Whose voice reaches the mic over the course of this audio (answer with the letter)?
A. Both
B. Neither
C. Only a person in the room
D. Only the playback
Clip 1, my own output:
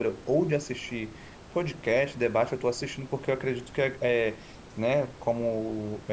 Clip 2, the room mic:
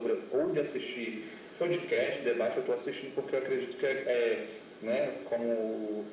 D